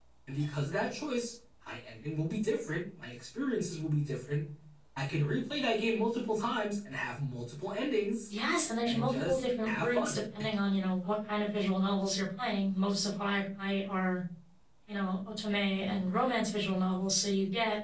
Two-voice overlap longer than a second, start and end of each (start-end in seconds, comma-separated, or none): 8.8-10.2